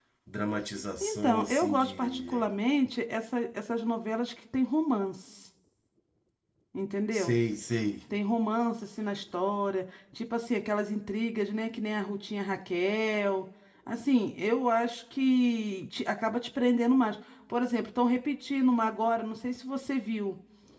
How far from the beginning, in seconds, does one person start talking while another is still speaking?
1 s

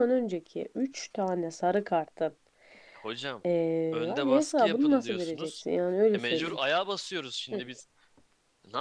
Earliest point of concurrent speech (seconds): 4 s

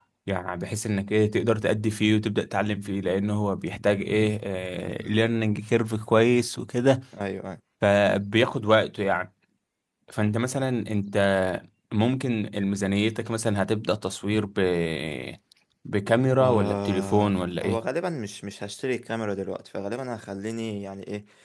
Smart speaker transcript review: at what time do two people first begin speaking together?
16 s

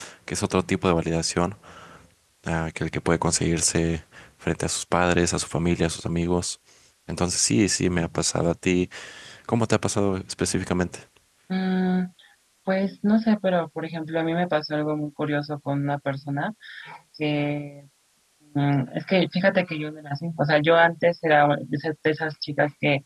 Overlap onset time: none

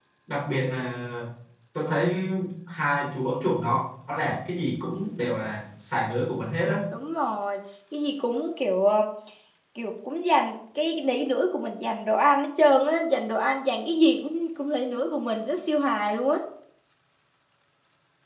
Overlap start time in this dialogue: none

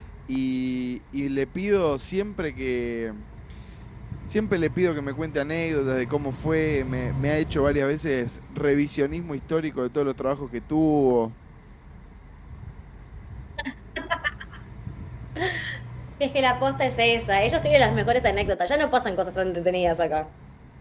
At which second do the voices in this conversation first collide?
none

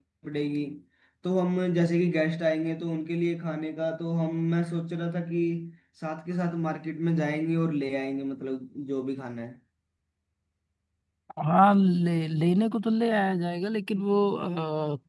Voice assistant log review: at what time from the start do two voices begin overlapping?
none

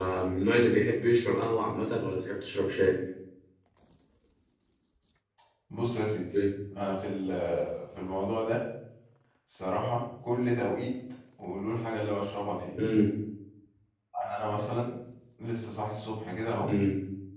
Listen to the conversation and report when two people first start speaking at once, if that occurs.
none

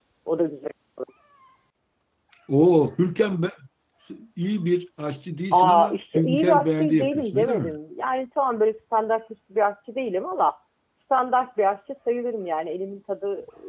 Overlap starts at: 6 s

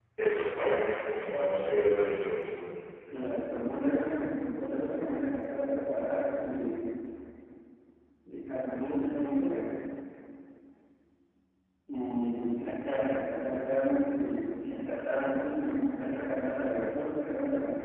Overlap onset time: none

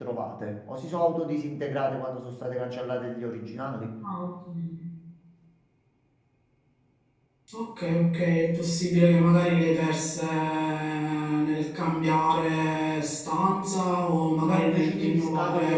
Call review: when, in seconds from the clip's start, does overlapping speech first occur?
14 s

